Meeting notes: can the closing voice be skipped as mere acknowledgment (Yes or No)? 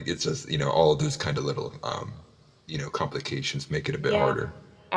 No